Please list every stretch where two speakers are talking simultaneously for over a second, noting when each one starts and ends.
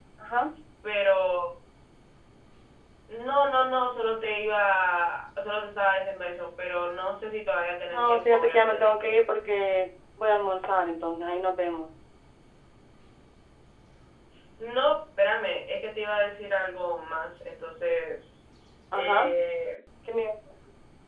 7.9-9.2

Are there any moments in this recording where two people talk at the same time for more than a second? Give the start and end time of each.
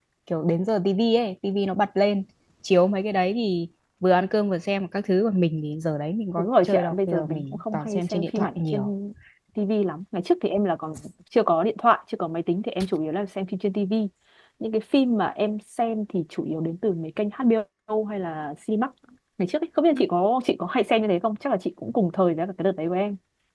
6.4-8.9

